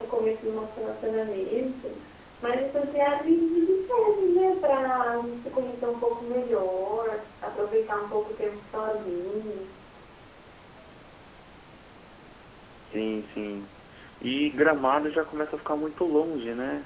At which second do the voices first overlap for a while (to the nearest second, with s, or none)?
none